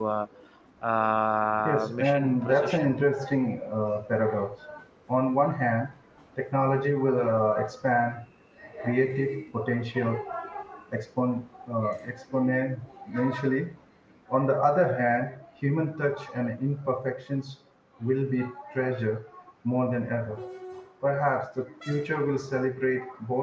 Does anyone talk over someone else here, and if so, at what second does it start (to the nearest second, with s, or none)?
2 s